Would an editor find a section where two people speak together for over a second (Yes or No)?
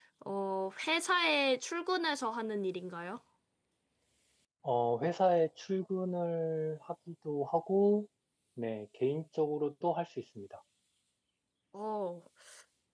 No